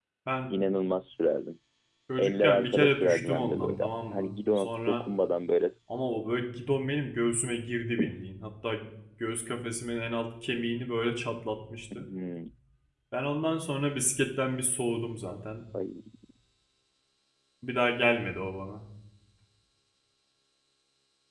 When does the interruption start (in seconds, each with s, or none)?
2.2 s